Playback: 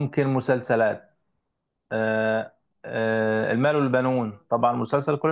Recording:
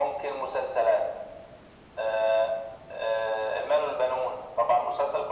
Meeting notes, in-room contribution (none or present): none